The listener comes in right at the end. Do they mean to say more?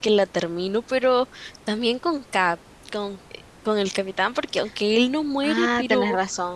Yes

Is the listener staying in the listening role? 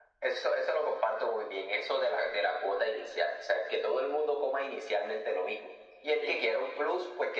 Yes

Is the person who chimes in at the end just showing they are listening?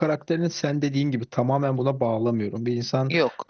Yes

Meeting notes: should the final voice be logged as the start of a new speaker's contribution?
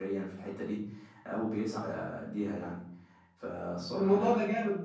Yes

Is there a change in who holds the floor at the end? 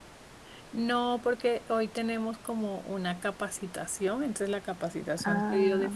No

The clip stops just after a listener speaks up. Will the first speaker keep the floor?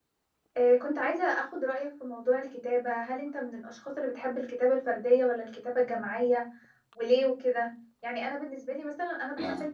Yes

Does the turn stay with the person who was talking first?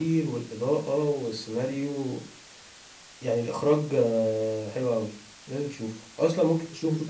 Yes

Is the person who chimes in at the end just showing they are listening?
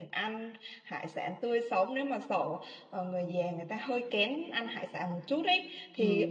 Yes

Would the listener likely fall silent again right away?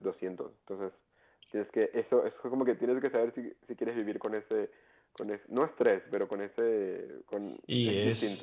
No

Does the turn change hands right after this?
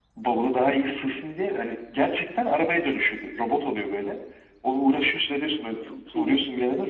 No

